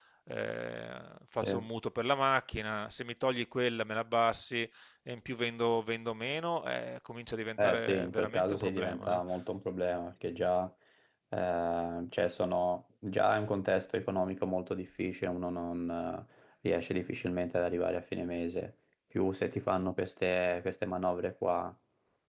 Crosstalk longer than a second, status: present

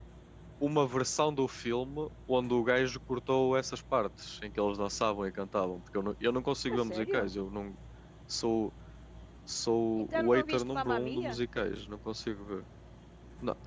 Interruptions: present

